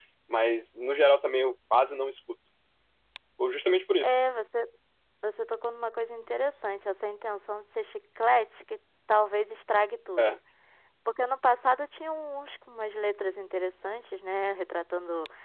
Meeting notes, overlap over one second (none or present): none